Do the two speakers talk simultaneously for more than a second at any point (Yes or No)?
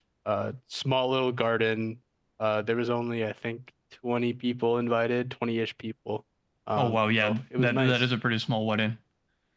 Yes